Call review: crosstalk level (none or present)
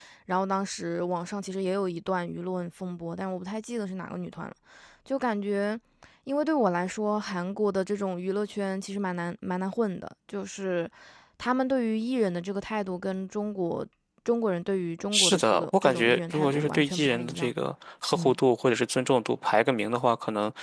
present